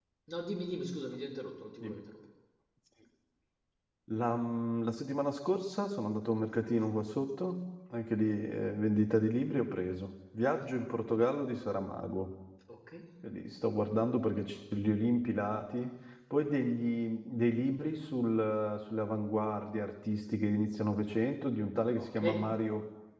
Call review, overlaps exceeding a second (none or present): none